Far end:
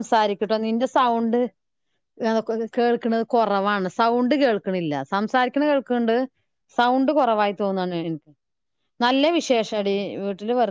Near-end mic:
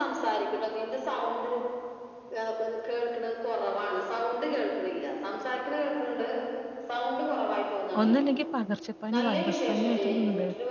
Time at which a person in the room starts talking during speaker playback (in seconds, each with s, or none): 8.0 s